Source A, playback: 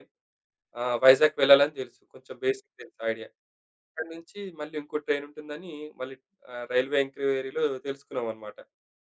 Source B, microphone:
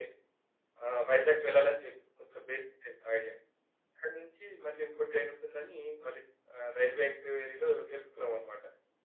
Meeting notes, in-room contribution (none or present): none